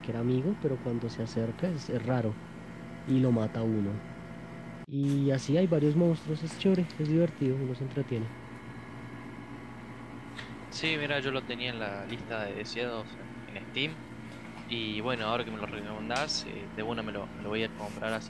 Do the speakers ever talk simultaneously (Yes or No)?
No